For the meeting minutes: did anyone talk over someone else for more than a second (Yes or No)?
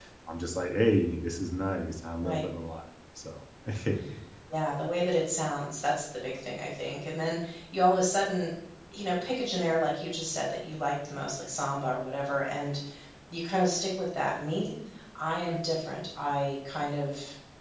No